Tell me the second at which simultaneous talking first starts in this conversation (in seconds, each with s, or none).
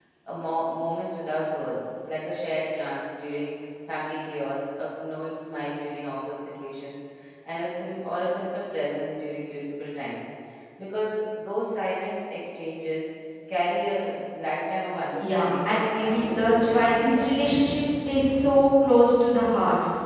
15.2 s